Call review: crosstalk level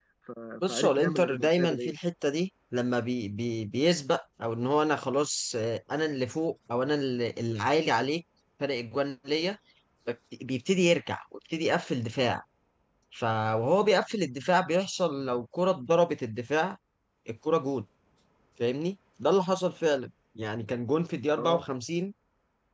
present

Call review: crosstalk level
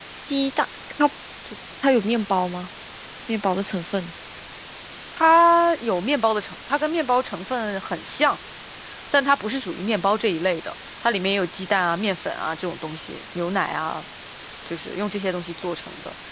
none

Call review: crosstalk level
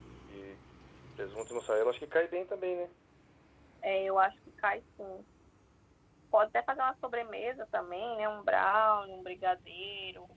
none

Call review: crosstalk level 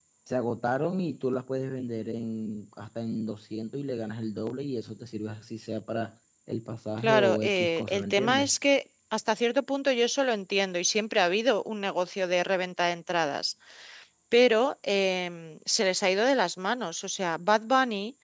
present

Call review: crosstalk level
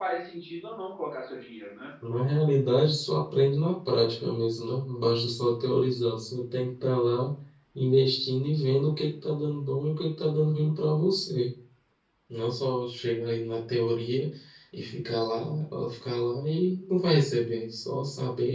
none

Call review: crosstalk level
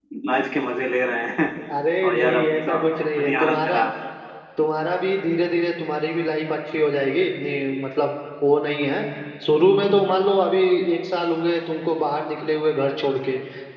present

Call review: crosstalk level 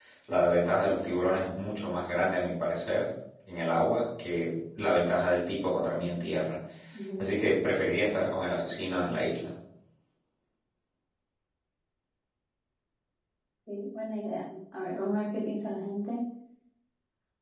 none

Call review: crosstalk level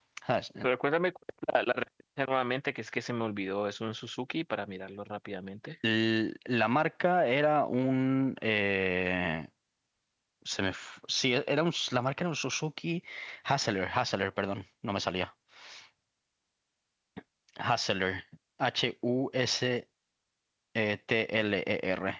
none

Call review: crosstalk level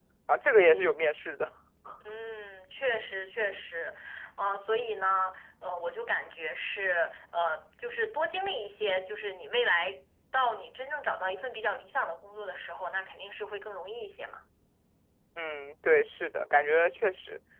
none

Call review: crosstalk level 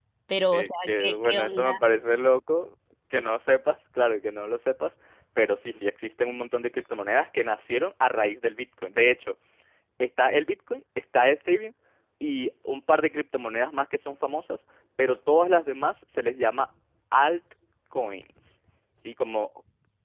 present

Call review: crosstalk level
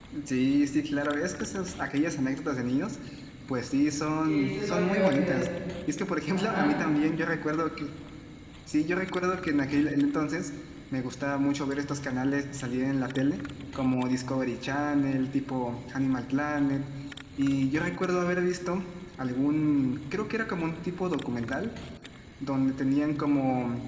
present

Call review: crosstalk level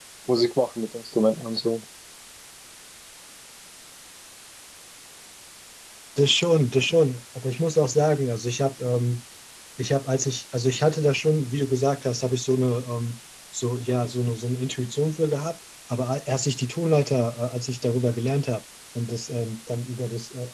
none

